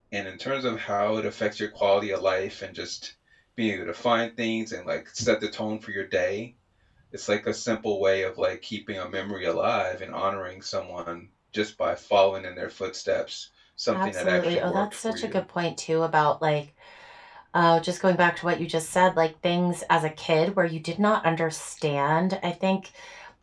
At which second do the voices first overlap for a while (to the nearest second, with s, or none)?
14 s